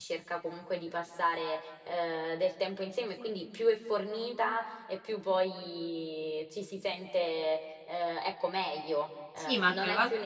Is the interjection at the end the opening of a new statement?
Yes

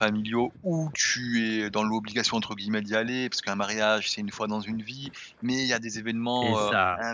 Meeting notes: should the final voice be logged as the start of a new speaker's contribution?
No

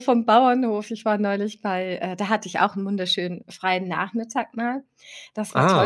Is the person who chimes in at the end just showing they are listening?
Yes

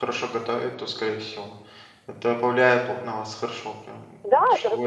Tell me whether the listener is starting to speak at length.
Yes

